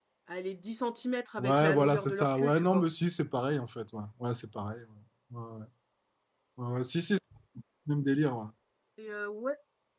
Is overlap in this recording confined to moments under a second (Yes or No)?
No